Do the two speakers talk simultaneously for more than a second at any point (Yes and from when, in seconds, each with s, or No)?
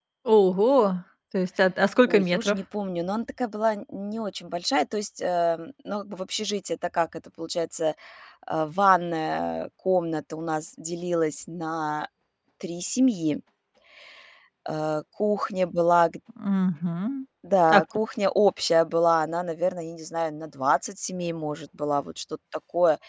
No